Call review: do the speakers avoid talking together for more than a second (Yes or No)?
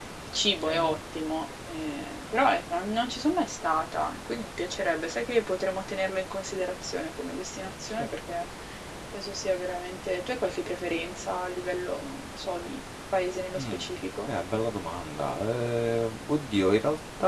Yes